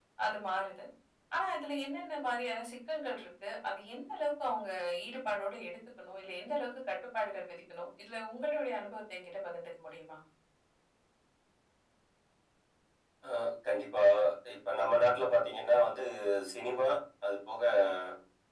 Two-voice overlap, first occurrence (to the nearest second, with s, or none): none